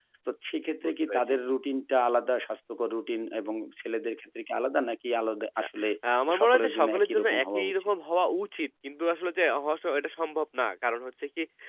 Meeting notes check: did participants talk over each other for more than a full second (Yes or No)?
Yes